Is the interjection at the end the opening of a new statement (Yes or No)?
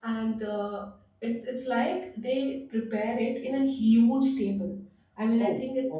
No